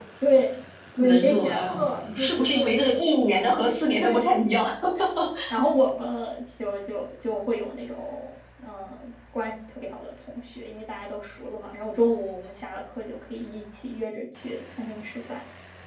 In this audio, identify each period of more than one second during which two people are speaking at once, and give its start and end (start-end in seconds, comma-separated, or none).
1.0-2.7